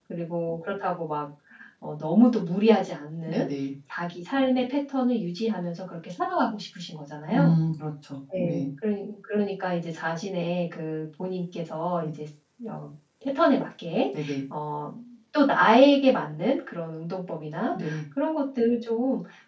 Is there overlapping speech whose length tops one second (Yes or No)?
No